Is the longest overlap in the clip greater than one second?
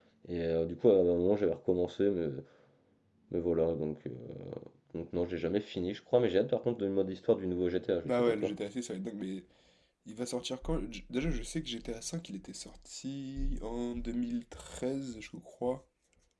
No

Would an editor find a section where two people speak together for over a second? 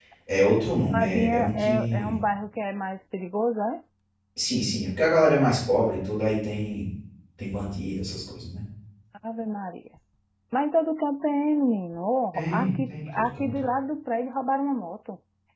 Yes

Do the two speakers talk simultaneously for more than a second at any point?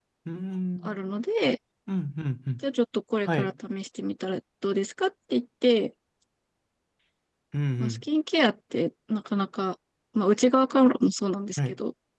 No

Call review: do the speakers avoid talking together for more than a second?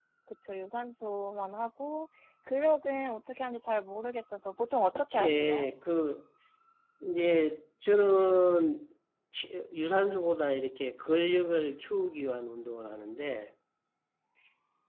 Yes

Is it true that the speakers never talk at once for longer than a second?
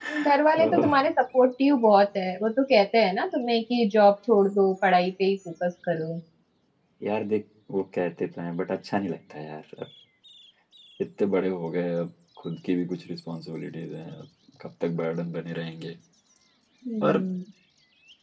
Yes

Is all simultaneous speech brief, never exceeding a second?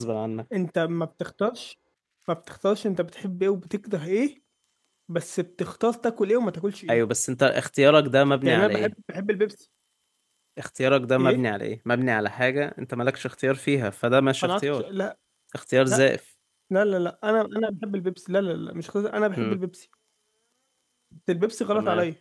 Yes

